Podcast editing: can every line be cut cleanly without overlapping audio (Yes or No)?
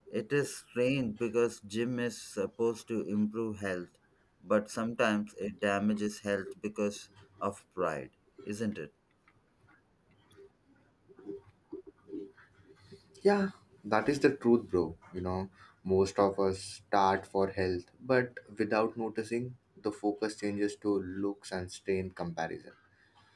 Yes